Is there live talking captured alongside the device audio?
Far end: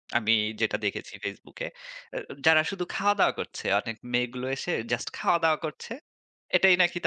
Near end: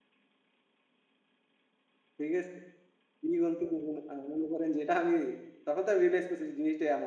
Yes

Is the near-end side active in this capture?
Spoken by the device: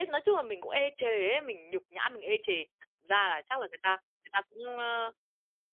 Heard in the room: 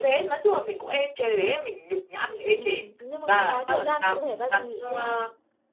Yes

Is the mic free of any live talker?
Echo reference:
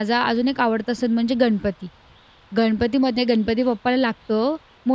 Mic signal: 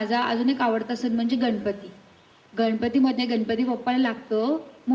Yes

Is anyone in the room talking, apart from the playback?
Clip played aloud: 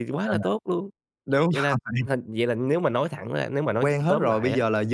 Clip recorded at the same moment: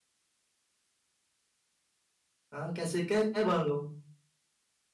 Yes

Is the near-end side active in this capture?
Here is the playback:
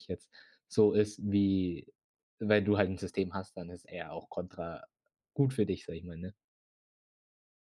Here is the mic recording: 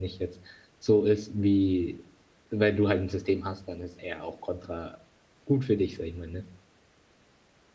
No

